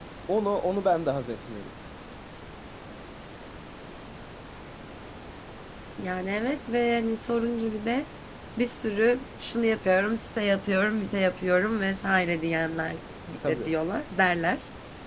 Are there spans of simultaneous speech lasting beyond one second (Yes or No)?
No